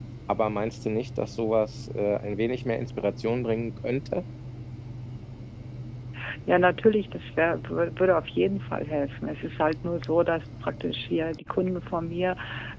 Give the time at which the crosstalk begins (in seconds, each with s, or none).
none